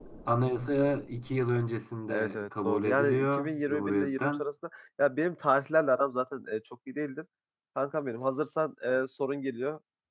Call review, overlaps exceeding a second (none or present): present